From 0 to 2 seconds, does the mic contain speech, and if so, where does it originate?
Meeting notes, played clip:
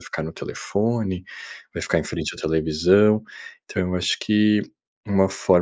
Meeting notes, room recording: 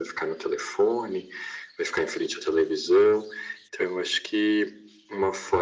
echo only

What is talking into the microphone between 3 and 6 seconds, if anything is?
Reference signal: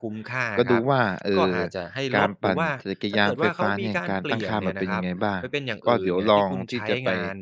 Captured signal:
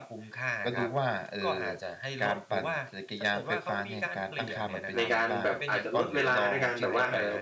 both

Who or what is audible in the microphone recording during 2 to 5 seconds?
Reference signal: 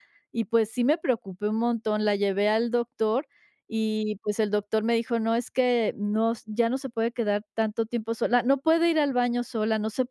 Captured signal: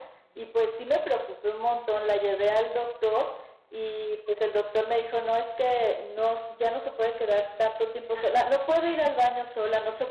echo only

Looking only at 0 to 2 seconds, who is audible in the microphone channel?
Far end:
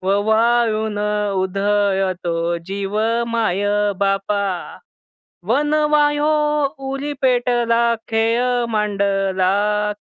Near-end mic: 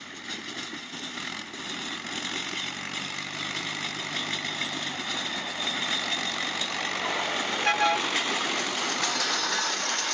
neither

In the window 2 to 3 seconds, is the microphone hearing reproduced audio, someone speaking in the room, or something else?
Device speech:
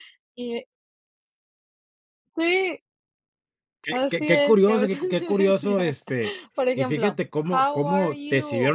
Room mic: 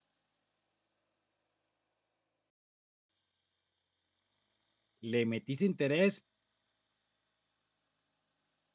neither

